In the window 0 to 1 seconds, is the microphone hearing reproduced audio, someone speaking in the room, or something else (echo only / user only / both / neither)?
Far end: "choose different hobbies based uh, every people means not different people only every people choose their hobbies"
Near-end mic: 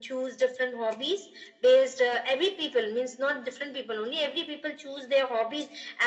echo only